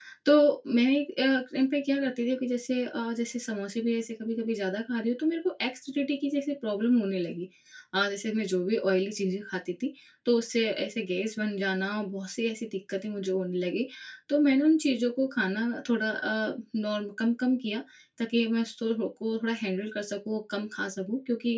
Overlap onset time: none

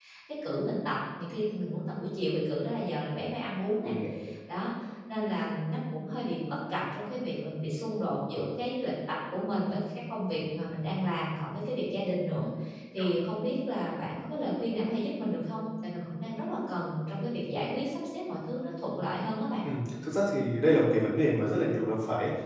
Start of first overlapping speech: none

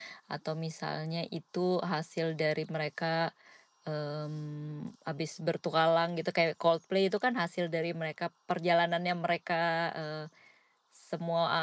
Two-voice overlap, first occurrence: none

